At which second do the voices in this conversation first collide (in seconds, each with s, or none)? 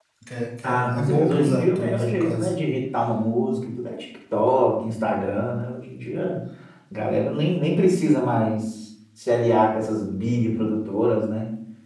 0.6 s